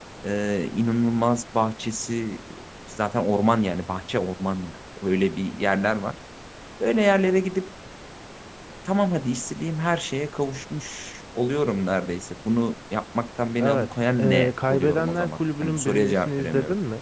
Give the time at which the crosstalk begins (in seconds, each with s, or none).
13.6 s